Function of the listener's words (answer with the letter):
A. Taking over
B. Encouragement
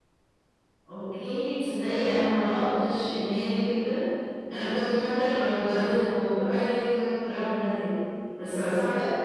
B